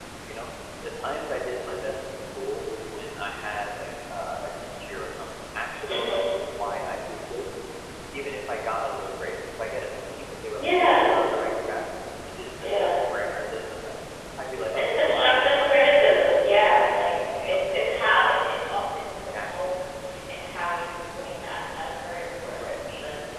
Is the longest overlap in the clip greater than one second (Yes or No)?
Yes